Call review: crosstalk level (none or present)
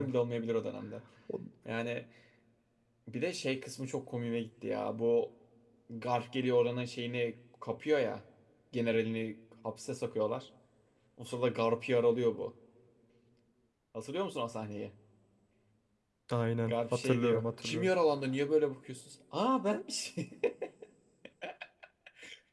present